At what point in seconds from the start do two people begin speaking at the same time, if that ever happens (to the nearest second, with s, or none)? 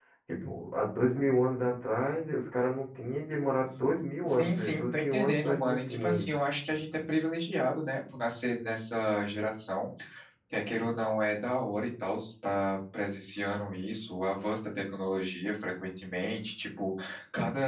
4 s